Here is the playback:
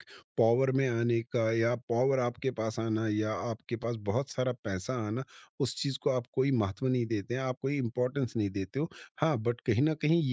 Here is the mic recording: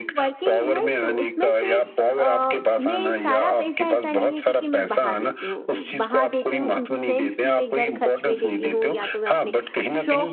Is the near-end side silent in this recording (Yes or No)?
No